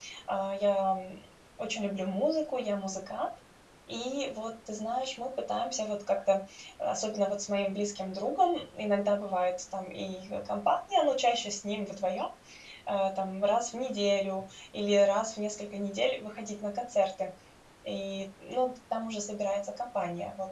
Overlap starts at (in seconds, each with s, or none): none